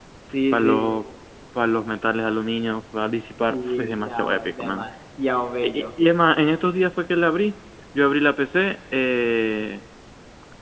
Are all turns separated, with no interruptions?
No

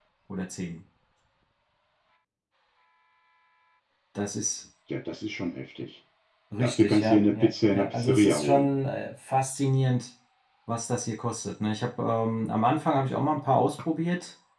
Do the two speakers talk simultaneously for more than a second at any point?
Yes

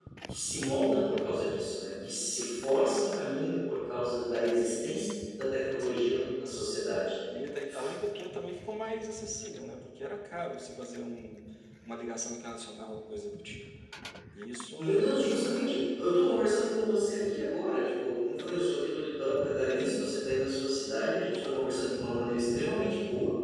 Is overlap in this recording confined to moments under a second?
Yes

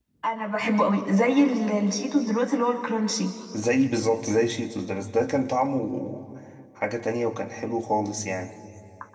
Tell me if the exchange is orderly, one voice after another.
Yes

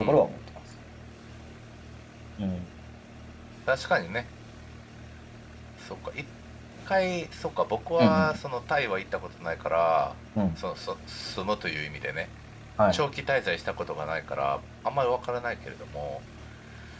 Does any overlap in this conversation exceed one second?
No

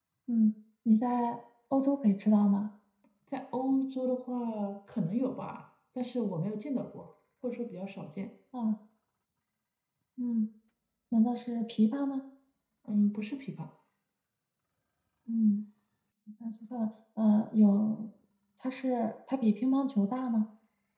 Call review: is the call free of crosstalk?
Yes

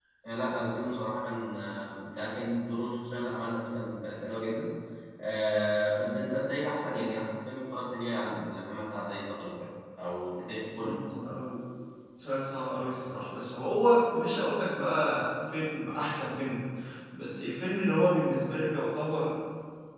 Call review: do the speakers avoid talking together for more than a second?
Yes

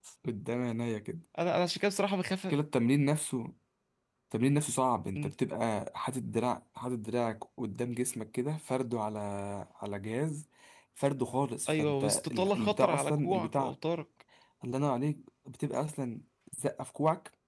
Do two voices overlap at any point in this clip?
Yes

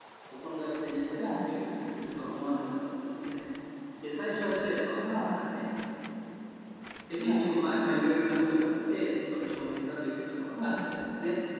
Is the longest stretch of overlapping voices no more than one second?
Yes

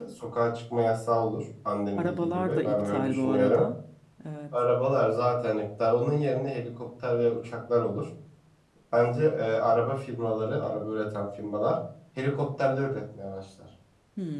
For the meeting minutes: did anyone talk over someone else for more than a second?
Yes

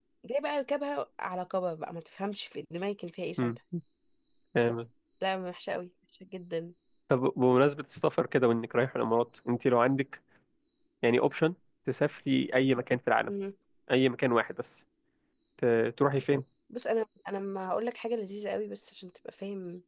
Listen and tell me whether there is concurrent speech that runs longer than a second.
No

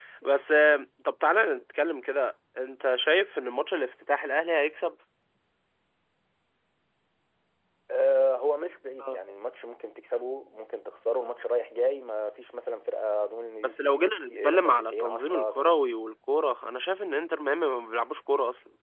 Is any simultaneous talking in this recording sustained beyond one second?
Yes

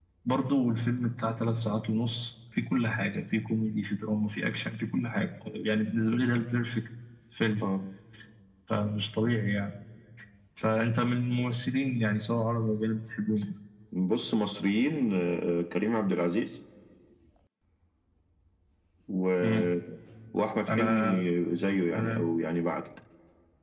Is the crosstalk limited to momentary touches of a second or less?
Yes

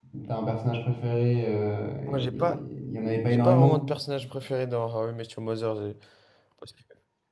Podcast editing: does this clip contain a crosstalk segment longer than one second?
No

